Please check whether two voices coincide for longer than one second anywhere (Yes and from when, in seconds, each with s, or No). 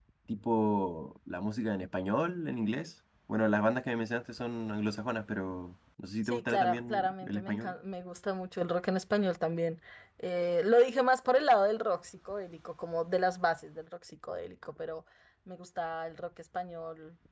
Yes, from 6.2 s